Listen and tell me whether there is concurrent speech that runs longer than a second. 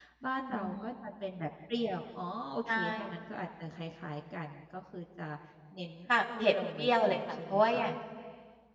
Yes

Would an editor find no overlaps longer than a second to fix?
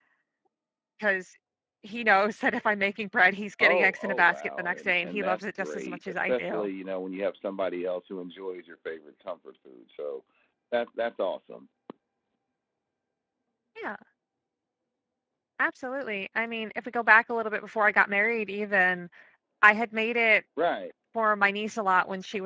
No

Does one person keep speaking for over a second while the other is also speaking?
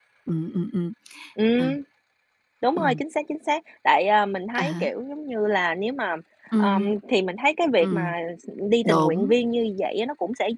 No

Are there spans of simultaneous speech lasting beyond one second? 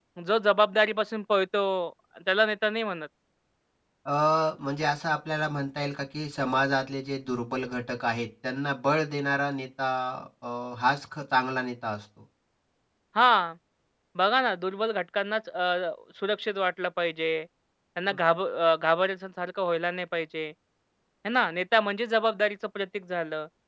No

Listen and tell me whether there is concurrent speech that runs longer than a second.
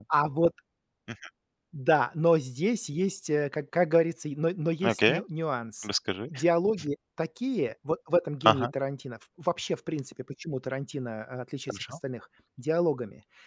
No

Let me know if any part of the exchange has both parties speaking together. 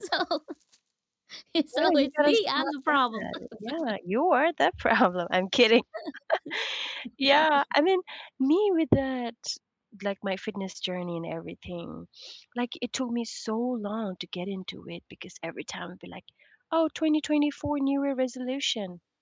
Yes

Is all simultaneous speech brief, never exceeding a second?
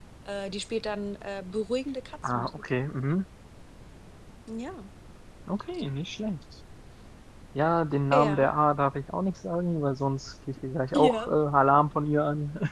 Yes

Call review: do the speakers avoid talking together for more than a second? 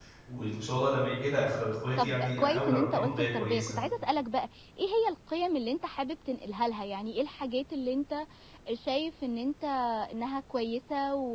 No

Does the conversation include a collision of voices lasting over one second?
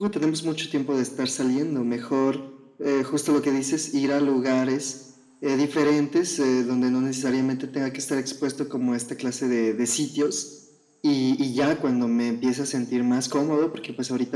No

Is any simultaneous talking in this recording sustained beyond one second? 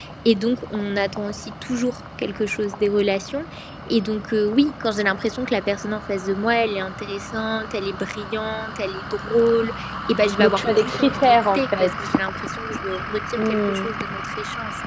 Yes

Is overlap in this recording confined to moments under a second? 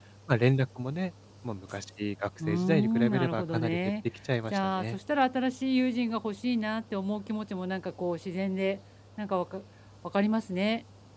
No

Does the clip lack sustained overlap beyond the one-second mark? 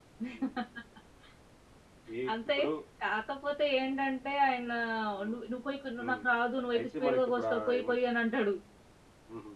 No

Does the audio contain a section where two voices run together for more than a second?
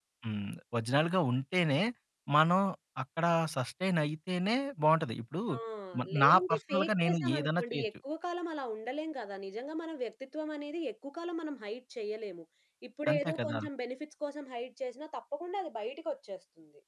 Yes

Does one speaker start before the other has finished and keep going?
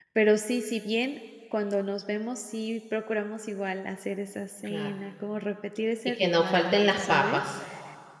Yes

